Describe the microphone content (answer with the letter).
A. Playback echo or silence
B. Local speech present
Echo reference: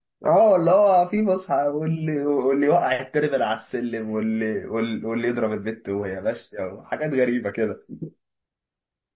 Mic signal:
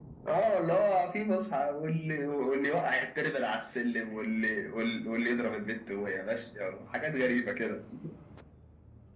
A